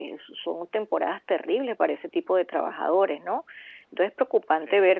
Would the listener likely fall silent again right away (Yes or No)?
Yes